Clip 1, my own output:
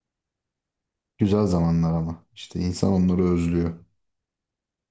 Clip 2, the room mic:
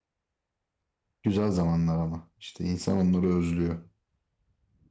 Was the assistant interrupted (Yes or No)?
No